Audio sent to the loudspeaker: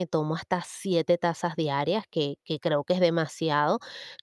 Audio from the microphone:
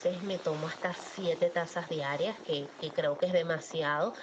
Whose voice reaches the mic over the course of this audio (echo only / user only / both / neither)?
echo only